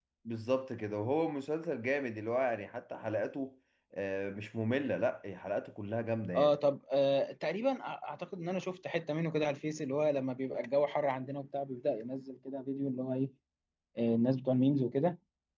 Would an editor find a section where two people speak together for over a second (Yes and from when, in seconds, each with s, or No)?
No